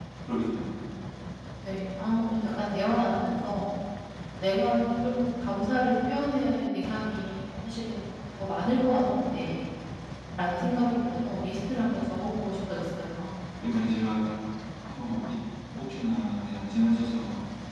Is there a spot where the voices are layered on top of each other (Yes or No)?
No